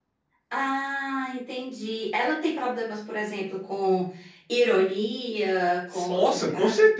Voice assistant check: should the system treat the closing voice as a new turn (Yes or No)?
Yes